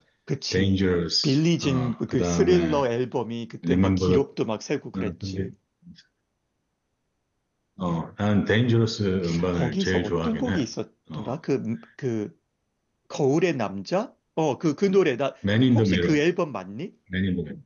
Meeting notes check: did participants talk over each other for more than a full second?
Yes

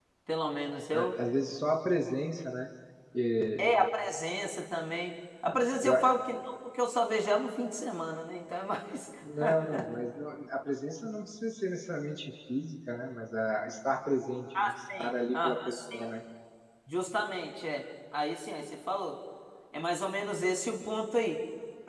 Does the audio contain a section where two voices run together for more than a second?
Yes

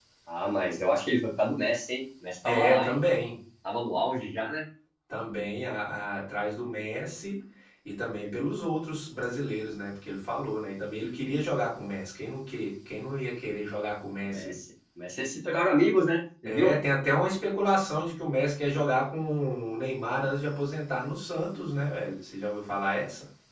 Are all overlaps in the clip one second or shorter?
Yes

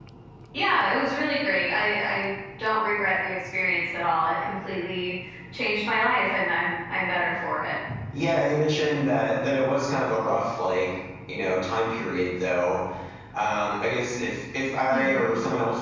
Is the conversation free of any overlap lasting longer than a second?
Yes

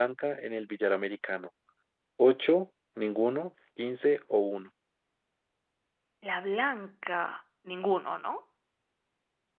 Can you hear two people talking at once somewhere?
No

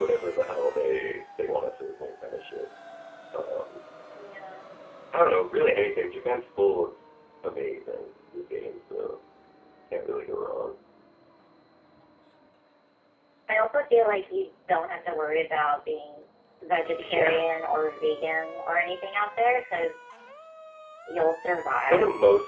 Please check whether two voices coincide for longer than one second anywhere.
No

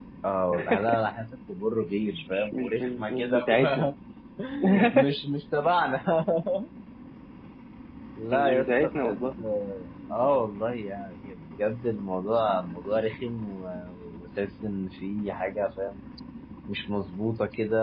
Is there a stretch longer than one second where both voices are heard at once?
Yes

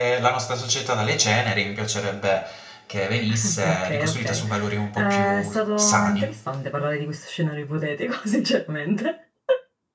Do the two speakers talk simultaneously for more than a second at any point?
Yes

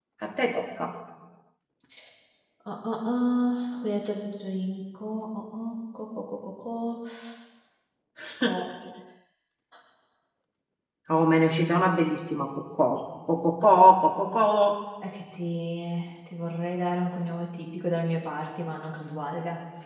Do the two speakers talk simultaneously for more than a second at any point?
No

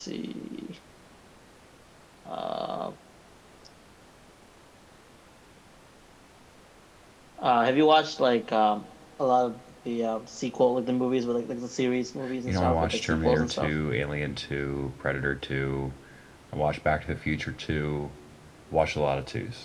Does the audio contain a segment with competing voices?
Yes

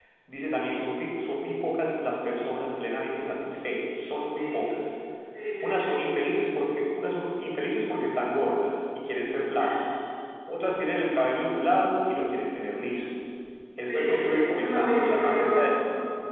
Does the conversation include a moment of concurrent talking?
Yes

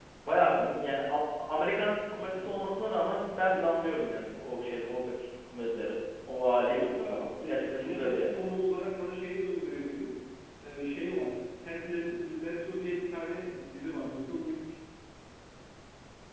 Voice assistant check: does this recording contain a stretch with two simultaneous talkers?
Yes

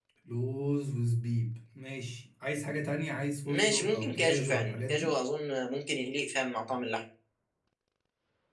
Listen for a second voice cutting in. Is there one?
Yes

